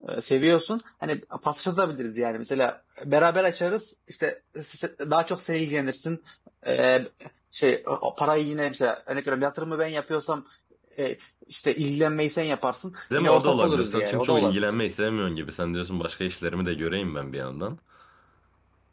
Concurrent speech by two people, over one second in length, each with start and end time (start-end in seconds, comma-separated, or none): 13.2-14.7